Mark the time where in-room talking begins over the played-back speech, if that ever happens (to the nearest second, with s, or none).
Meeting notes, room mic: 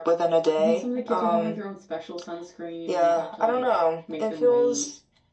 1 s